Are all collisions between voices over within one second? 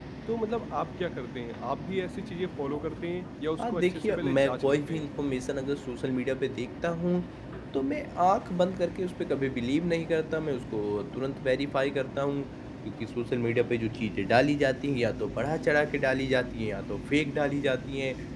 No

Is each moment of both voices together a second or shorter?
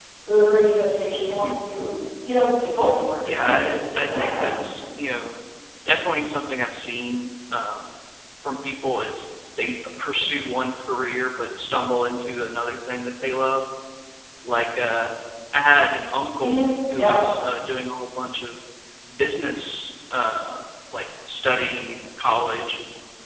No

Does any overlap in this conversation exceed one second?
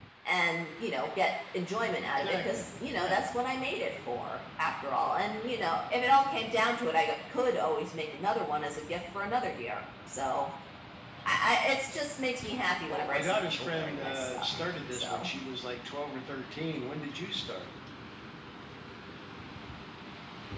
Yes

